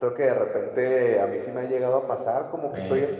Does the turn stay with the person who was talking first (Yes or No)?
Yes